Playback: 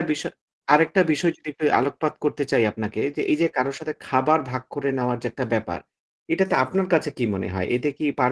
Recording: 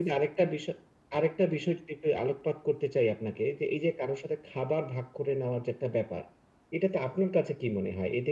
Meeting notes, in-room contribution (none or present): none